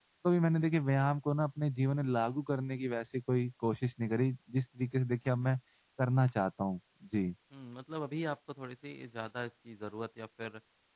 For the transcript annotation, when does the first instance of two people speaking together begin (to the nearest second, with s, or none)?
none